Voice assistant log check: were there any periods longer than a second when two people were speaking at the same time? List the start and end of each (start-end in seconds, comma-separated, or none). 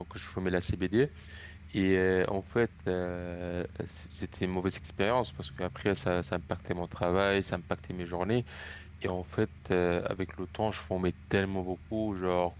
none